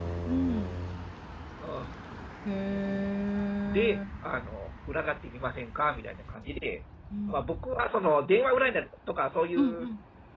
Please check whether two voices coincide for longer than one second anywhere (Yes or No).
No